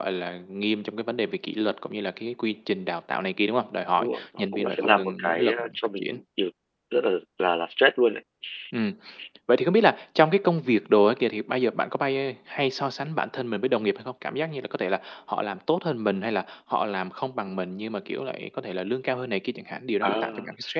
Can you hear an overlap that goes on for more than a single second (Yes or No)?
Yes